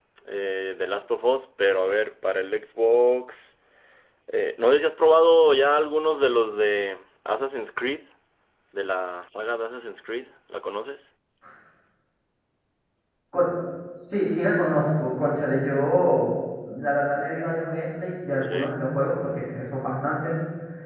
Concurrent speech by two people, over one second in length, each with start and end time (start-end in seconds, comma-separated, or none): none